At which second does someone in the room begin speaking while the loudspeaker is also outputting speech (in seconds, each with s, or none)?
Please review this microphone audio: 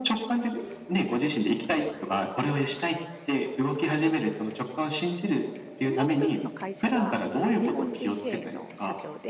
5.8 s